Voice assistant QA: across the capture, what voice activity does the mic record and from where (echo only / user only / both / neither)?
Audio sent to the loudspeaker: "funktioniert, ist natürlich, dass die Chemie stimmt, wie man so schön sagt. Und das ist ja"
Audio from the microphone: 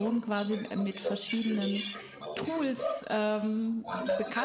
both